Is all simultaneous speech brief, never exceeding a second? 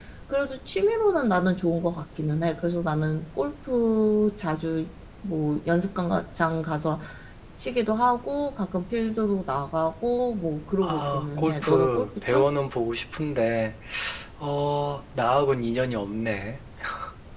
No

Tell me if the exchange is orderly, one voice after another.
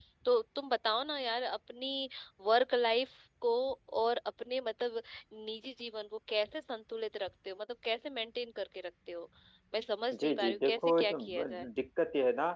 No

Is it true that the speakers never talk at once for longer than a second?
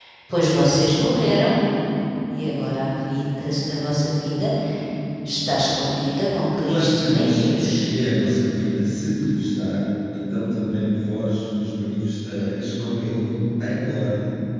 No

